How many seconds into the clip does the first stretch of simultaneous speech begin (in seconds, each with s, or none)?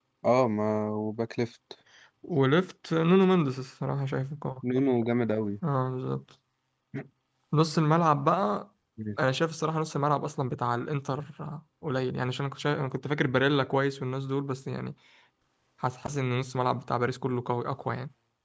none